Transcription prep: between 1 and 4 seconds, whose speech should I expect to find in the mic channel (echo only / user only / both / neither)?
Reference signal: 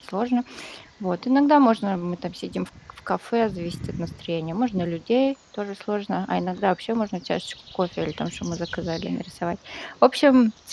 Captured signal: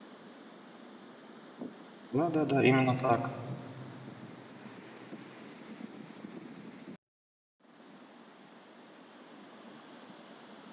user only